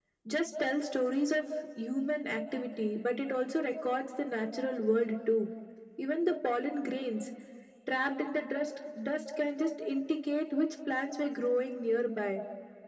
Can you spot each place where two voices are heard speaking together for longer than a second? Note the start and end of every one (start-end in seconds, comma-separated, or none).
none